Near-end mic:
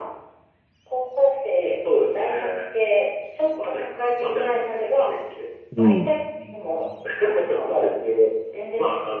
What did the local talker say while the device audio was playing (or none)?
い。うん。